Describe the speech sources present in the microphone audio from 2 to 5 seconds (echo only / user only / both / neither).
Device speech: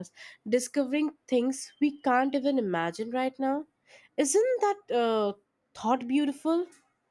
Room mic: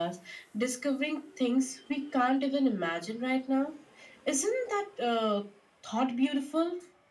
echo only